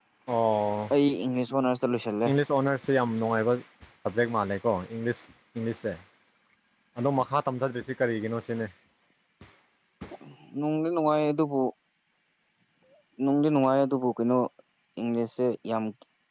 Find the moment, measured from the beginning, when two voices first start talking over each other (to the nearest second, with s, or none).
none